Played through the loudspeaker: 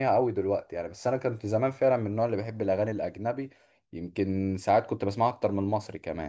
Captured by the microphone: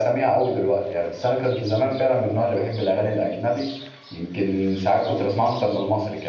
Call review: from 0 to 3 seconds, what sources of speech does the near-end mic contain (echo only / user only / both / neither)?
echo only